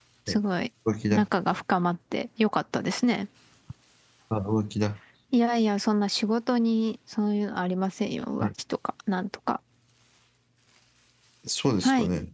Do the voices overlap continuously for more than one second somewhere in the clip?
No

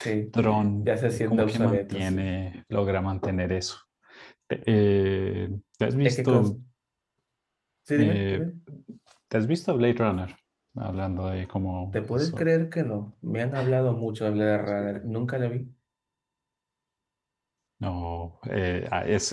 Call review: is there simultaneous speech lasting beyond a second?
Yes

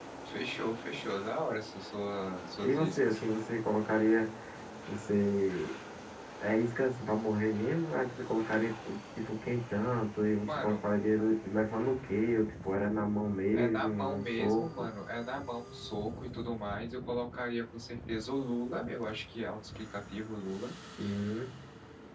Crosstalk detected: Yes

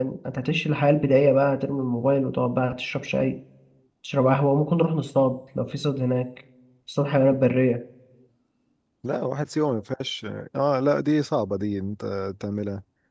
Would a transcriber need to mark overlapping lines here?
No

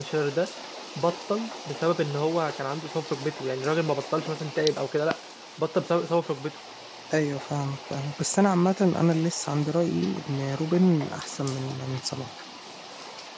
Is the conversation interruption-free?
Yes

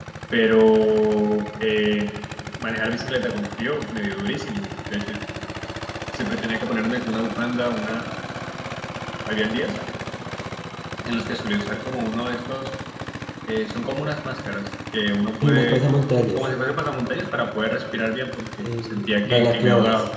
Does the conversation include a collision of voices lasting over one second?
Yes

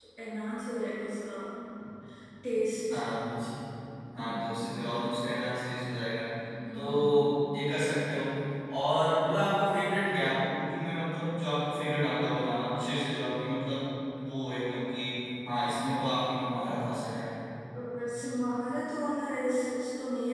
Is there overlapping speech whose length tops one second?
No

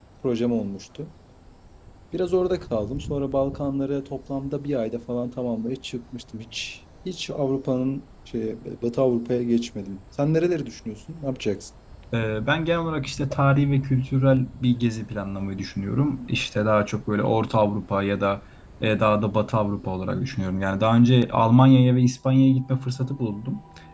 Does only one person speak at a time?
Yes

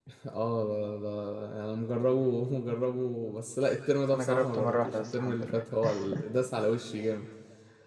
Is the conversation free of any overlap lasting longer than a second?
No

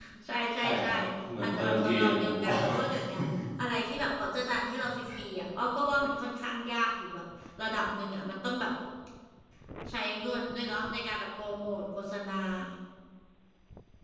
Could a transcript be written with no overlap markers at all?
No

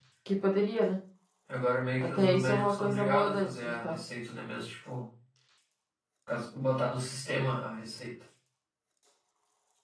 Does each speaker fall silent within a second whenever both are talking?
No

